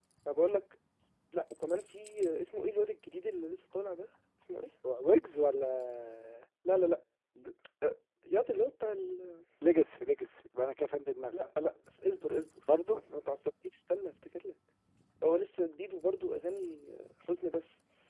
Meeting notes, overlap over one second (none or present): none